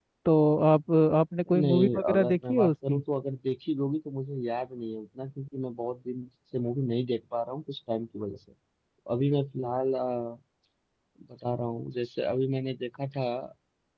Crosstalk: present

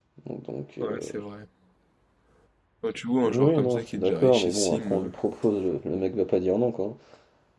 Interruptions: present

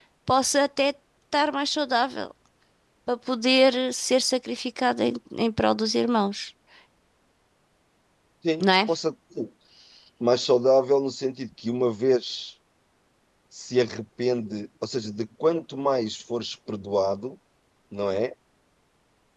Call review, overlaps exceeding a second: none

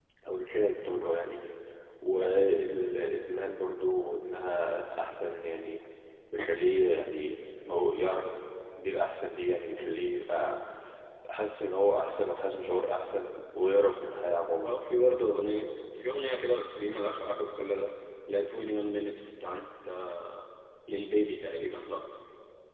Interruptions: none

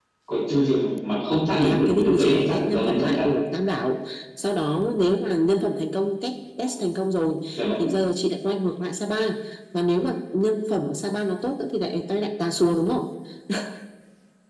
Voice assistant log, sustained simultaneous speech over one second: present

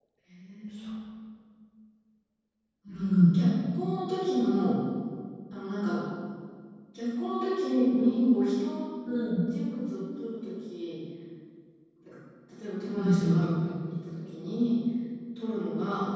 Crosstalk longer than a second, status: none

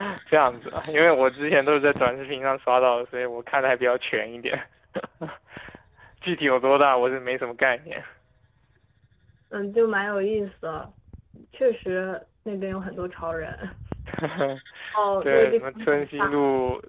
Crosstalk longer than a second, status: present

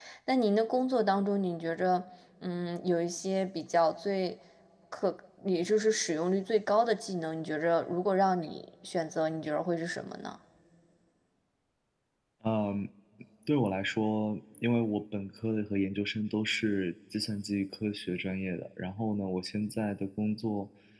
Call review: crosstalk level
none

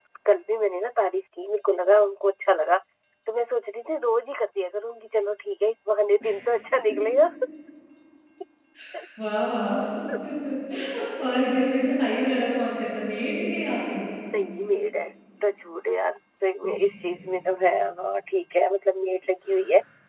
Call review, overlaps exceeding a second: none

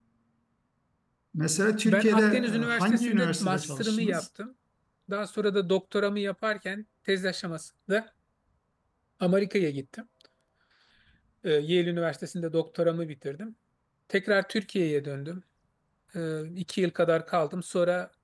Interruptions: present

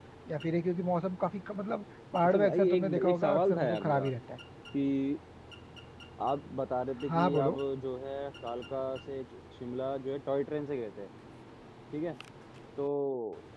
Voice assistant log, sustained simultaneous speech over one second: present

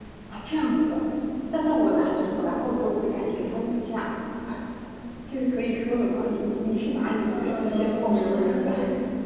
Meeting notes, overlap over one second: present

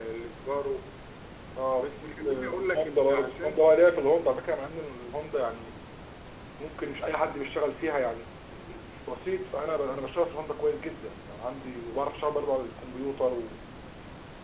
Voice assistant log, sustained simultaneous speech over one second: present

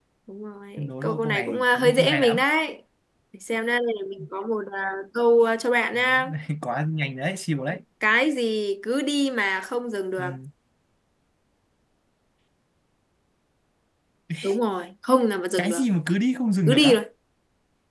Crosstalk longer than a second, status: present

